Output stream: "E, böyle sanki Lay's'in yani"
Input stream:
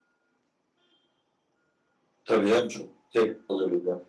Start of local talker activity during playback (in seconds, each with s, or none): 2.2 s